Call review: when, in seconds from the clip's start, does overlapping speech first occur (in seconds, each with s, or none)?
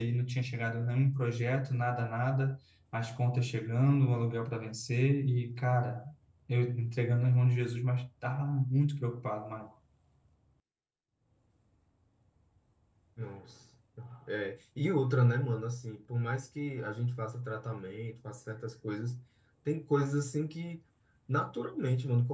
none